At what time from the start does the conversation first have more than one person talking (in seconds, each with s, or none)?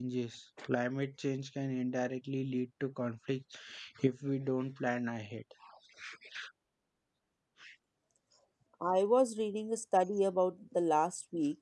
none